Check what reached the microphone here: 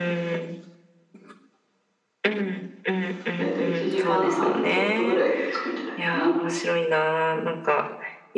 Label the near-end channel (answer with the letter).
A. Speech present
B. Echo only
A